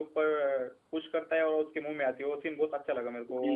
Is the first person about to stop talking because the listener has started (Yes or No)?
Yes